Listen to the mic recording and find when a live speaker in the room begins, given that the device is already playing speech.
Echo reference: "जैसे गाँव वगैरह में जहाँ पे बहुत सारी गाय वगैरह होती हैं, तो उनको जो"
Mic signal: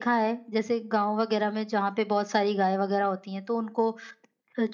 none

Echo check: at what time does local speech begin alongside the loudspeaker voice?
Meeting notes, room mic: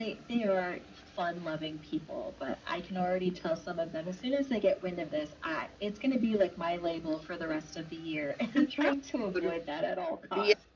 9 s

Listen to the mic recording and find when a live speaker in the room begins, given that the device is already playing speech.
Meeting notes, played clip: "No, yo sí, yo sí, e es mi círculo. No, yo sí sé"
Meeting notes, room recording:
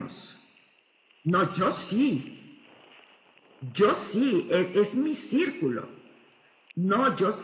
none

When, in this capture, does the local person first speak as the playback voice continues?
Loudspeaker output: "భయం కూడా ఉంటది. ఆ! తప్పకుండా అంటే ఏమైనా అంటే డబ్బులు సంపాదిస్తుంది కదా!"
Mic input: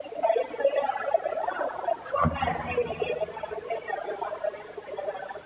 2 s

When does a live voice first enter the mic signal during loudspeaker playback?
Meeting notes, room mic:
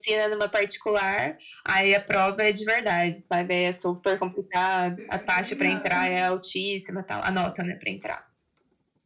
5 s

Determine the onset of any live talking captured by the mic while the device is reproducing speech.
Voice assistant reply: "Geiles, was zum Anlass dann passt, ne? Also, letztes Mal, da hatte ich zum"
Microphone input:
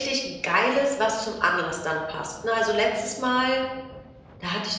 none

